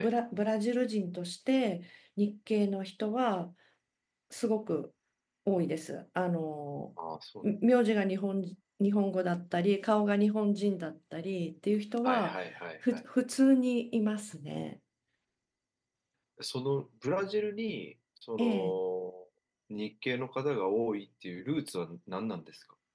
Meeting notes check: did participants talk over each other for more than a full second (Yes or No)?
No